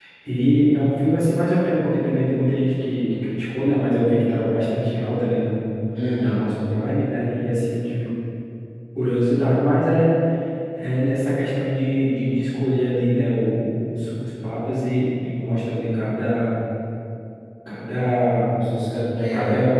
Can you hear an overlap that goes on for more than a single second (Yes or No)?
No